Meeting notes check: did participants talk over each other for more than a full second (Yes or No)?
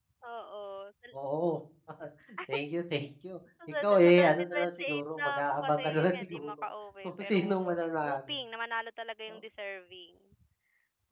Yes